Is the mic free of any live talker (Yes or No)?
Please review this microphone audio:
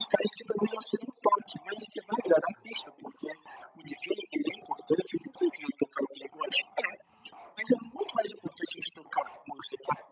Yes